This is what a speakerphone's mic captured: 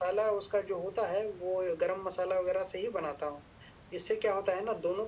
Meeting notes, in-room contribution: none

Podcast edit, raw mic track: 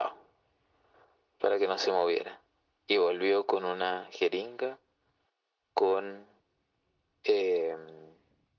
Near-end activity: none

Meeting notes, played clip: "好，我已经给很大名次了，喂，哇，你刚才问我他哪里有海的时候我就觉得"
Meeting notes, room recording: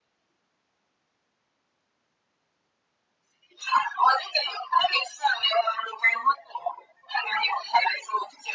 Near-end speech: none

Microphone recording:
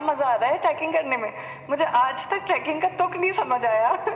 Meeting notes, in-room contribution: none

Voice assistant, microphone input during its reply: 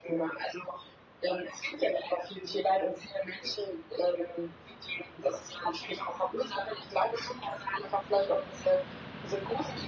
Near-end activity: none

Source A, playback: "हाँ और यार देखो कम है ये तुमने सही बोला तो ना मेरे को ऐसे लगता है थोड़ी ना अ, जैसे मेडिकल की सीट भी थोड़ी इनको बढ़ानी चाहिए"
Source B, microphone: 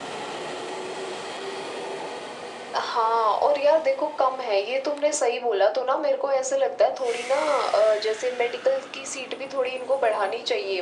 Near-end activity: none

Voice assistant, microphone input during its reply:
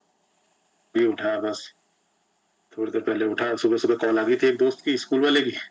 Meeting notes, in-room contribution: none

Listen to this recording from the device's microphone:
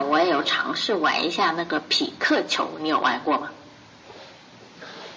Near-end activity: none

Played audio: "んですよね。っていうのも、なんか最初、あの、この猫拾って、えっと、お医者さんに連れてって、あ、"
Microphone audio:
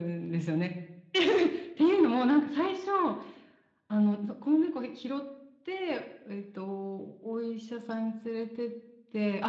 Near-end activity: none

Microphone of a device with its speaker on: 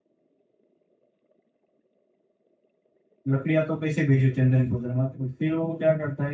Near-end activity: present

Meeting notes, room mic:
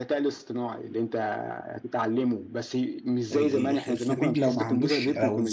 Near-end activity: present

